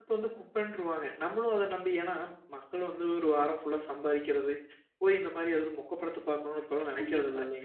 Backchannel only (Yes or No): No